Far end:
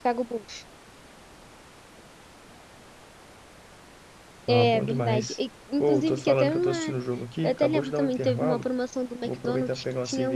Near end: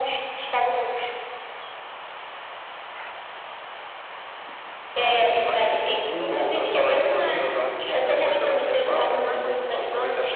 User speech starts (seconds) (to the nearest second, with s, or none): 5 s